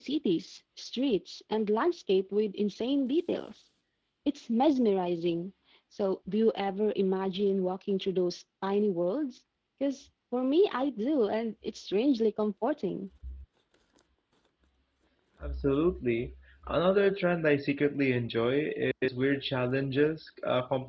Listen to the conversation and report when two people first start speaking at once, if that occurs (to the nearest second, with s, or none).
none